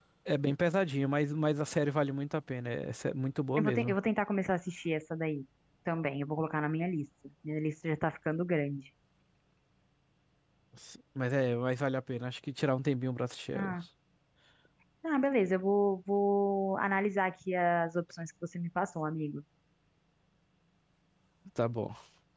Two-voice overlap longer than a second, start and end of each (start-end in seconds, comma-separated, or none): none